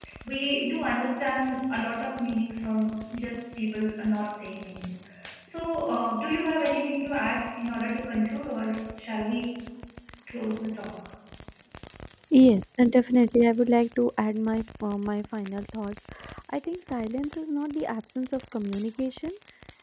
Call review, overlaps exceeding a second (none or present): none